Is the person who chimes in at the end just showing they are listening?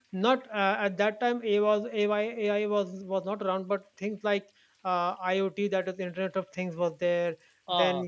Yes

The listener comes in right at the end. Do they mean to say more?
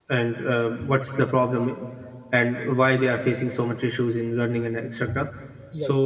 No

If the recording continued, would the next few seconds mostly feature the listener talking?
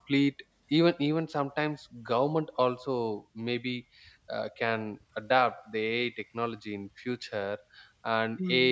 No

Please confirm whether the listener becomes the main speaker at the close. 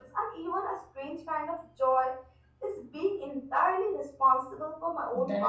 Yes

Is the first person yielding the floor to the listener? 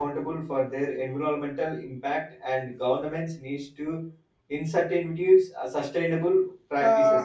Yes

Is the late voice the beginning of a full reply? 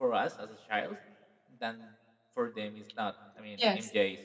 No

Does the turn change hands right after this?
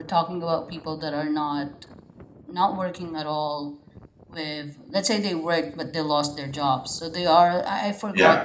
No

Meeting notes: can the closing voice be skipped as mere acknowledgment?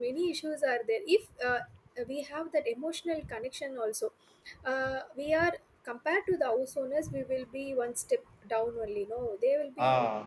Yes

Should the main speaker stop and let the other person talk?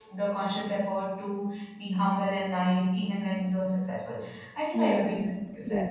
Yes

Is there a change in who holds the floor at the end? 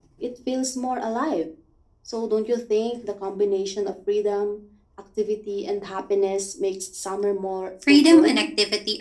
Yes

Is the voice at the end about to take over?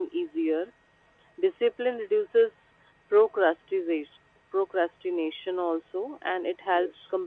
No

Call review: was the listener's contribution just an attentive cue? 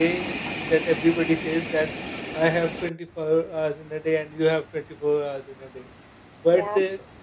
Yes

